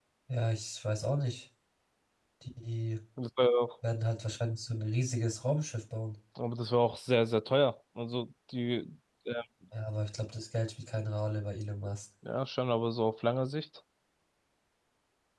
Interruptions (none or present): none